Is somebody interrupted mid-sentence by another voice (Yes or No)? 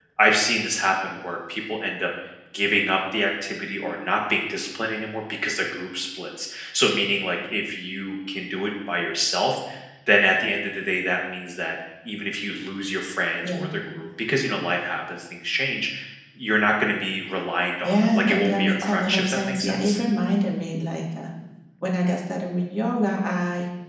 Yes